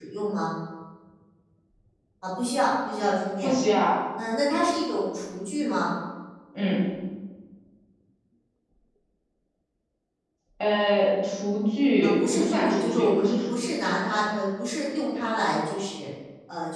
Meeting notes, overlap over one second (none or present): present